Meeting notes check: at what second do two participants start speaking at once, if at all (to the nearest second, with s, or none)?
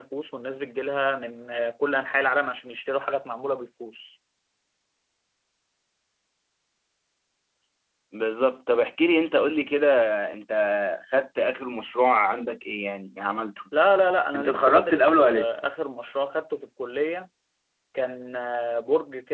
14 s